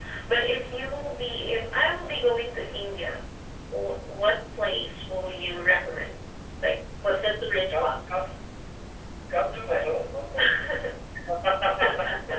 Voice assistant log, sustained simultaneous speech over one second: none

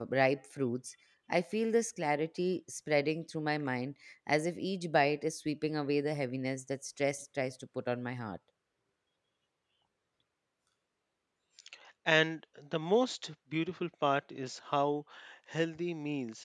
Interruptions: none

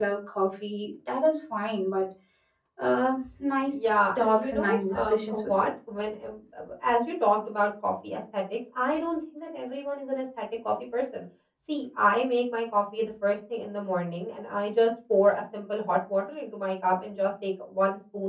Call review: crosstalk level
present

